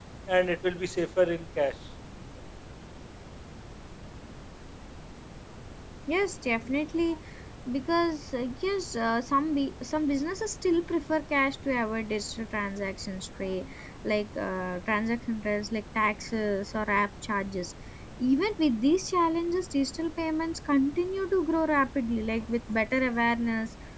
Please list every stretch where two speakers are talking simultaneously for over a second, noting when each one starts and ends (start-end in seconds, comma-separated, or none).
none